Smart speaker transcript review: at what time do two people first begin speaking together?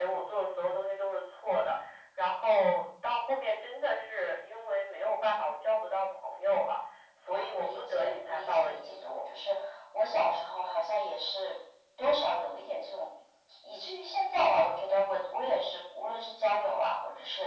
7.3 s

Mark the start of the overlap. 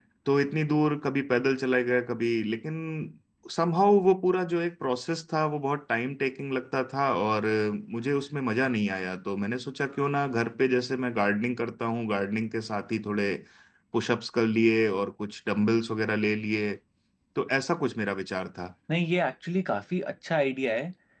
none

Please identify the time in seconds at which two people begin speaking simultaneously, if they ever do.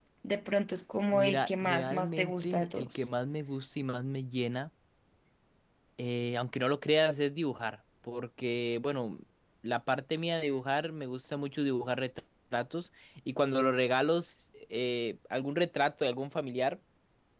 1.1 s

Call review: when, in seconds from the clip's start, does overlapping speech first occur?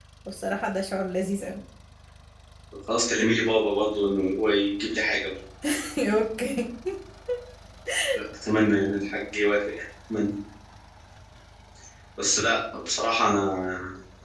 none

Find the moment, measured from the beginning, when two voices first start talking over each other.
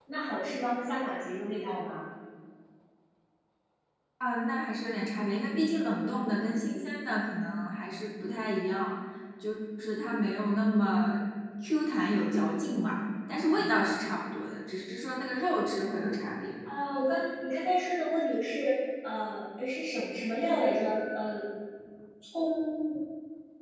none

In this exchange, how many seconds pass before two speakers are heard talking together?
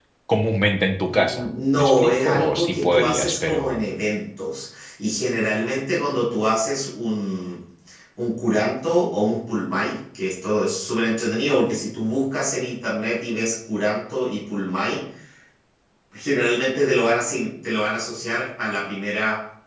1.1 s

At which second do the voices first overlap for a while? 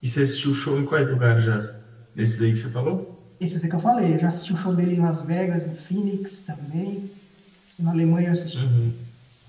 none

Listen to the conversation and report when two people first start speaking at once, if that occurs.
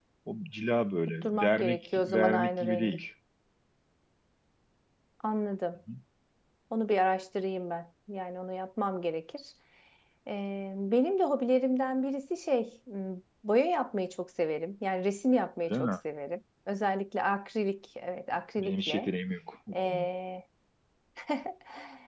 1.2 s

